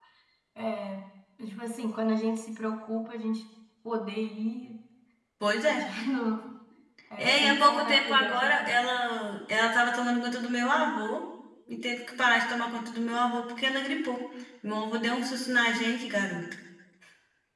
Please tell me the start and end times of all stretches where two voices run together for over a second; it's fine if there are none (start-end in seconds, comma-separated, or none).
7.2-8.8